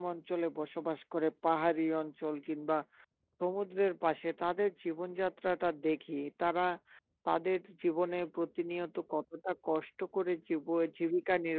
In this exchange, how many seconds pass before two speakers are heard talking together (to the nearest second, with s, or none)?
none